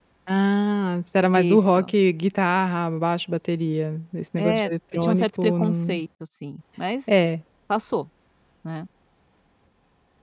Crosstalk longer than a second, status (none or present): present